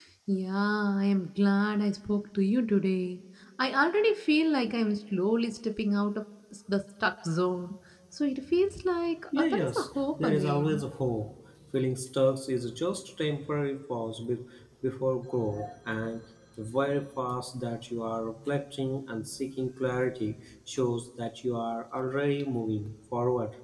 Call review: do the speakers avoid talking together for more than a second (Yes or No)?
No